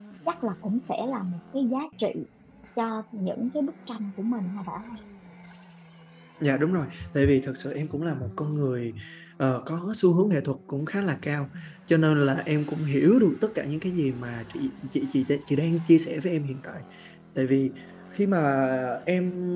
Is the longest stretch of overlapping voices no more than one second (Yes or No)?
Yes